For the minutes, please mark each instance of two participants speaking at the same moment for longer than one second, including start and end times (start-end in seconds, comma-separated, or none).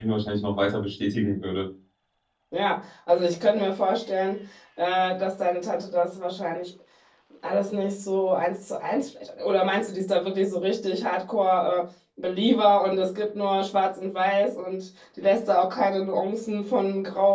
none